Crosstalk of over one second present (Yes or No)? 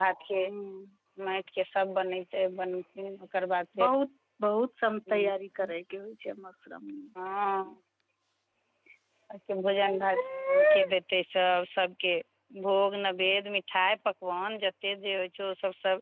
No